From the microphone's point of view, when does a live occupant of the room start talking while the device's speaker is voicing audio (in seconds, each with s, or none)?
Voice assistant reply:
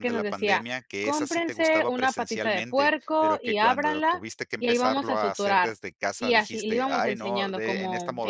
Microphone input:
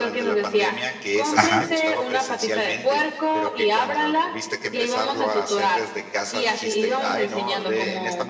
1.4 s